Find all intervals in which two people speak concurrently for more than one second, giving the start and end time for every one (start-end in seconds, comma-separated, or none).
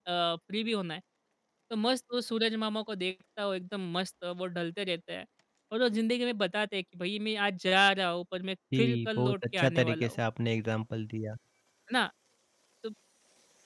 8.8-10.2